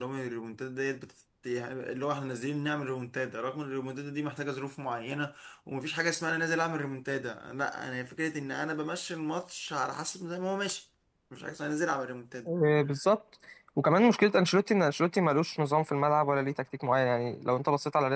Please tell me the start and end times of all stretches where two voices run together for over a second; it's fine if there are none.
none

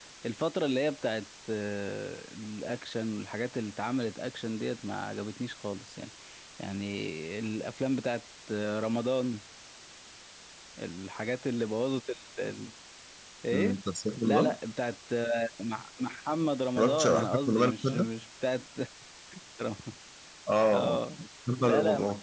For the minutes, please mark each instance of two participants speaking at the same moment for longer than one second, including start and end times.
16.8-18.1

